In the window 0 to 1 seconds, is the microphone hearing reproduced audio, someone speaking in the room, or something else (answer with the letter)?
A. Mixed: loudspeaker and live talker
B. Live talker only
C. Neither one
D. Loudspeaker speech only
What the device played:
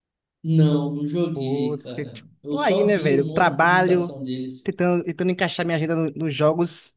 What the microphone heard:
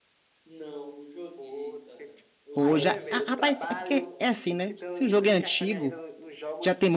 D